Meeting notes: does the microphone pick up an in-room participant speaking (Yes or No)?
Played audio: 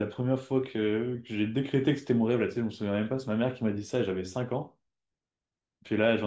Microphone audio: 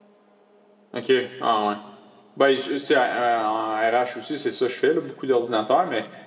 Yes